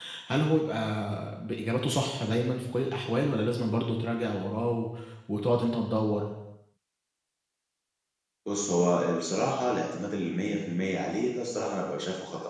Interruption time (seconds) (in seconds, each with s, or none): none